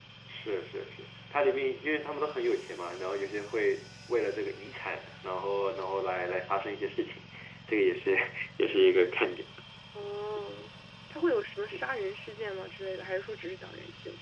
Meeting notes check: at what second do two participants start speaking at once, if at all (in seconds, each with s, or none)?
none